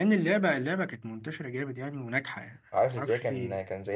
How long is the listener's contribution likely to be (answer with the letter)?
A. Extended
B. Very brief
A